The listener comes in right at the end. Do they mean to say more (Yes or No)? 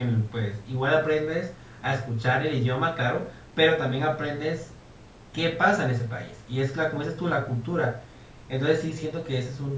No